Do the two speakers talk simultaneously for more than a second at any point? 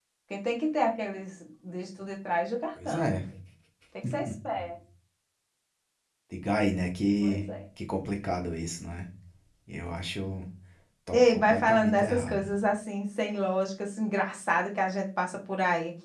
Yes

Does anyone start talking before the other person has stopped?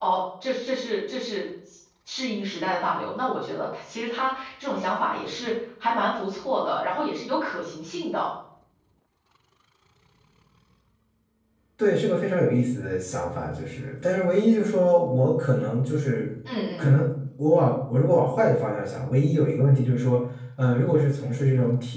No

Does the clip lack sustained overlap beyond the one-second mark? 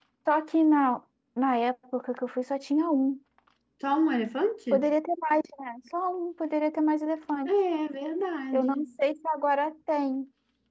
Yes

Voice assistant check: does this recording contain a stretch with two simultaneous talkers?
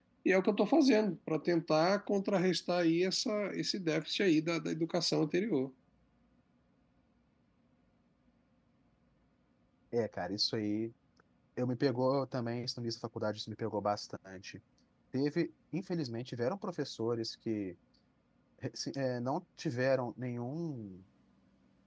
No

